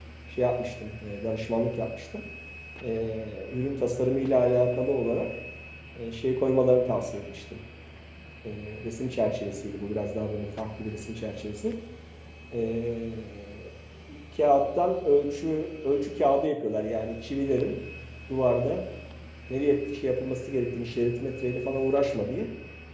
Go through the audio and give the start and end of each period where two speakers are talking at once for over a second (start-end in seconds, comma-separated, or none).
none